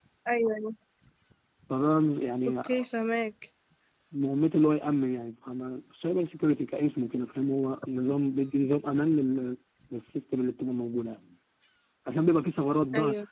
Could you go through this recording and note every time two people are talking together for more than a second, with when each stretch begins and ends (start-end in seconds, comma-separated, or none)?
none